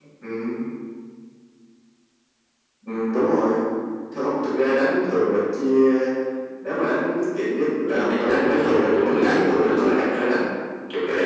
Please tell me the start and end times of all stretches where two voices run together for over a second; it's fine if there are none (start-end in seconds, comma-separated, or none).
8.1-10.4